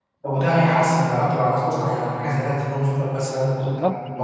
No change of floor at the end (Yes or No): No